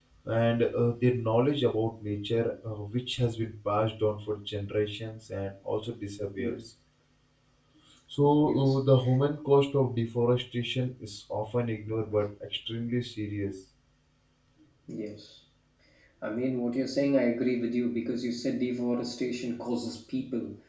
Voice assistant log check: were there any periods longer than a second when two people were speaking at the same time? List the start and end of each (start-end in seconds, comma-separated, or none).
none